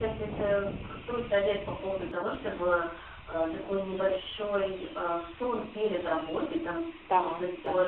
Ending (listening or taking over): listening